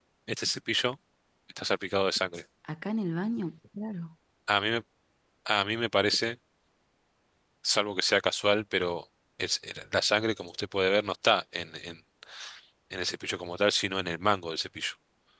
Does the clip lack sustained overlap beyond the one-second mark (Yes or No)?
Yes